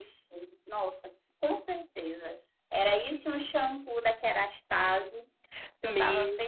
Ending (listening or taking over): taking over